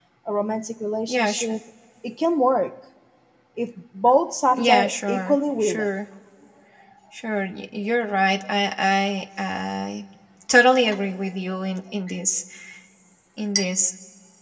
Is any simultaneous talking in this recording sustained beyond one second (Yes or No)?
Yes